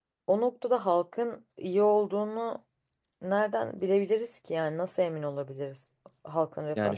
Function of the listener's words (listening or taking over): taking over